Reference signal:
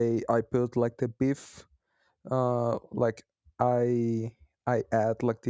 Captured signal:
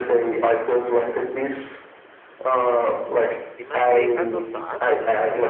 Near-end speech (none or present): present